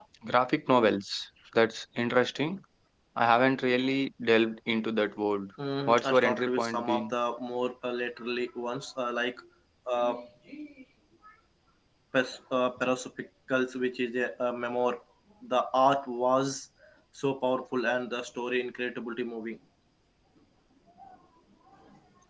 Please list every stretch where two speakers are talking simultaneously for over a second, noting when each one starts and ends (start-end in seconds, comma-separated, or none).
5.9-7.1